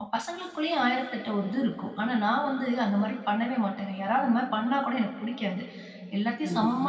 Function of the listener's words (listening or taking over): listening